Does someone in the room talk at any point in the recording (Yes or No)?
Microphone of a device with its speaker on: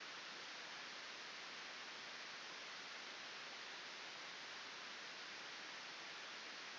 No